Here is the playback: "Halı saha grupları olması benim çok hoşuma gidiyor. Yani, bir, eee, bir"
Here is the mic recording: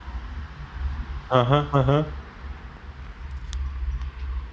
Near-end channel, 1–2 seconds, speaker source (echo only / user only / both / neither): user only